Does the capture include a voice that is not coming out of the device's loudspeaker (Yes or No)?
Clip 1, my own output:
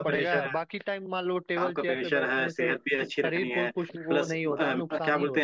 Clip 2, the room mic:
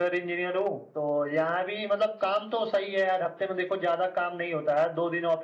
Yes